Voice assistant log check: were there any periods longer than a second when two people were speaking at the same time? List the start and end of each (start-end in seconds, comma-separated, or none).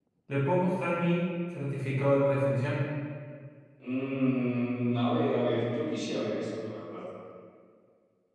none